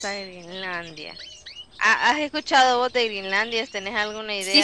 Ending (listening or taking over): taking over